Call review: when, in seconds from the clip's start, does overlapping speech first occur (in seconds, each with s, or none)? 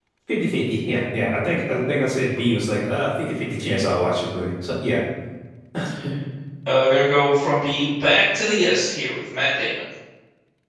none